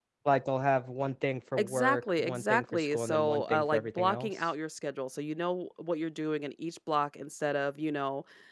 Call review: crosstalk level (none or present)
present